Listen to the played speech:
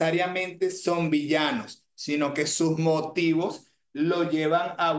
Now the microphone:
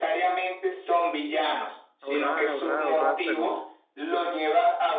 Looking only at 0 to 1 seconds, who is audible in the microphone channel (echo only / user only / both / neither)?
echo only